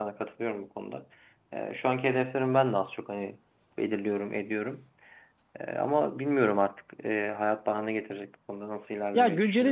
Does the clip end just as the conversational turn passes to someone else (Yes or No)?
Yes